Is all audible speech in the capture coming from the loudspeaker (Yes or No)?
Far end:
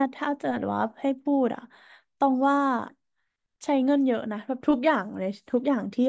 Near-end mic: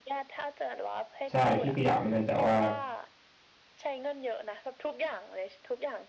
No